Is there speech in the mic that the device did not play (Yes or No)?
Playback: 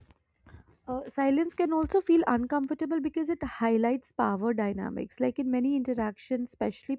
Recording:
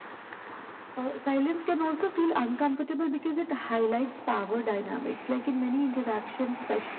No